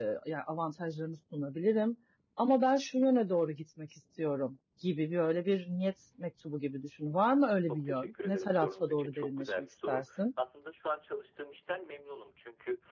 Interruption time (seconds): 7.7 s

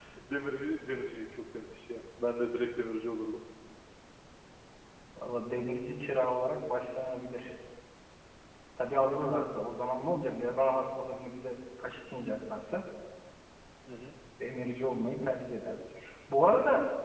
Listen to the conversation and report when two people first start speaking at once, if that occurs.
none

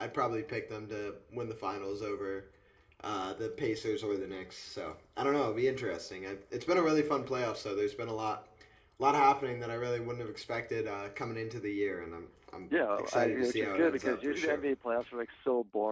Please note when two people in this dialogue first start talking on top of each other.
12.9 s

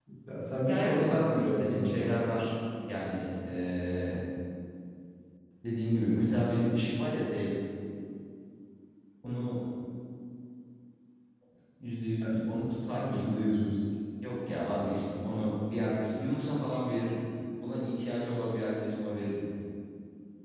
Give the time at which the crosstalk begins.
0.6 s

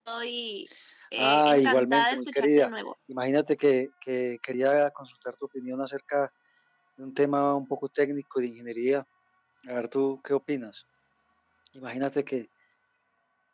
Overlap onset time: 1.2 s

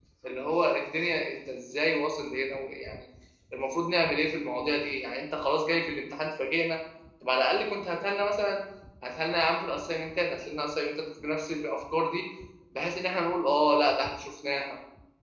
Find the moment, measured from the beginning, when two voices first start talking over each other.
none

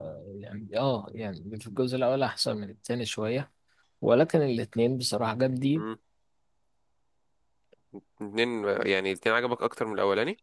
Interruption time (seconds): none

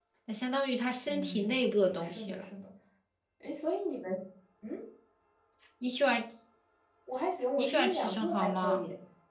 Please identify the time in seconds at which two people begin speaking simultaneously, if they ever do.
1.1 s

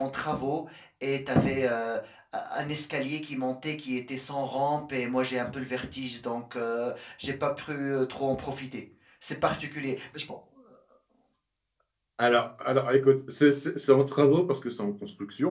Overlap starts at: none

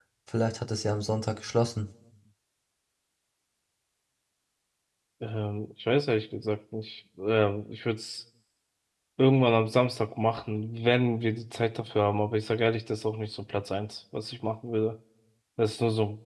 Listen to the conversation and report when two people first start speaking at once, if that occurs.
none

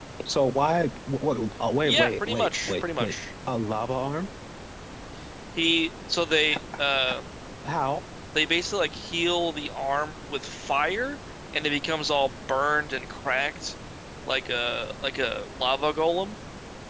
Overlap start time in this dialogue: 1.9 s

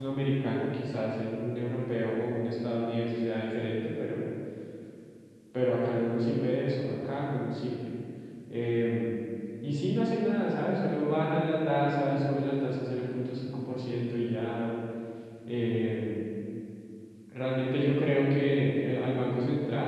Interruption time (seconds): none

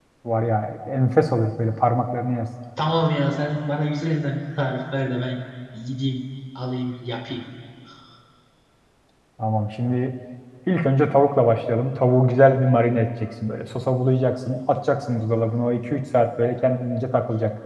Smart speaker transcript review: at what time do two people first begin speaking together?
none

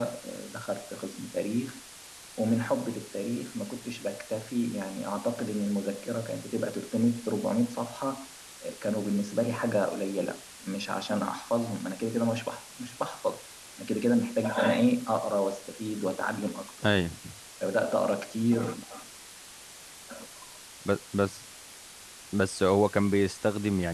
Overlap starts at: none

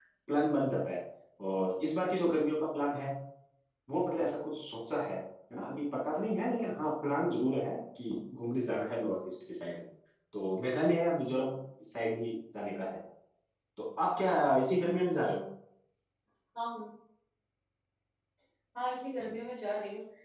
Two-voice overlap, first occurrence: none

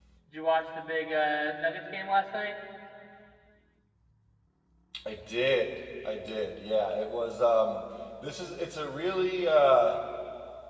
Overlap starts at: none

